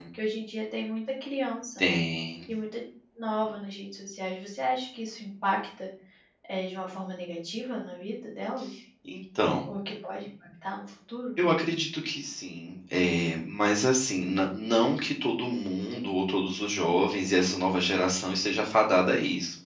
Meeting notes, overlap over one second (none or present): none